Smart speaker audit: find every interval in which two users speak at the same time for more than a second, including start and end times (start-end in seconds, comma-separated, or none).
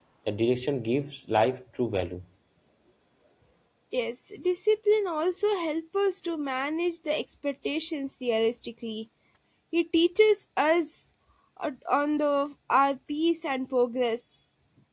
none